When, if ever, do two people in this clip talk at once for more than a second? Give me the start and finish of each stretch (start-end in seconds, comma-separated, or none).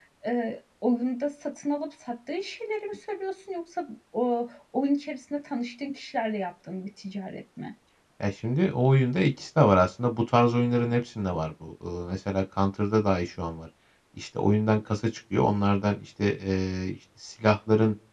none